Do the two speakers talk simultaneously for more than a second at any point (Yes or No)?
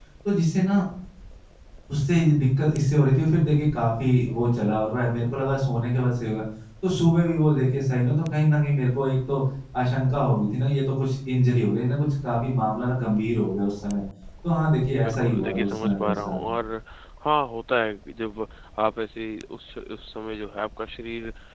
Yes